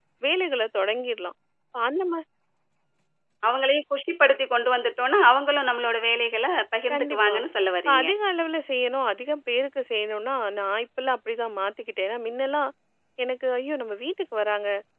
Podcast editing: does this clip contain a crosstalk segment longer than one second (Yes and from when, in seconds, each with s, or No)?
No